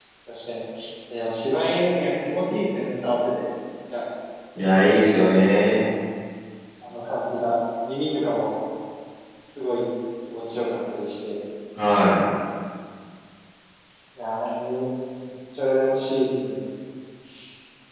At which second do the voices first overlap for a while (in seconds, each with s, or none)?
none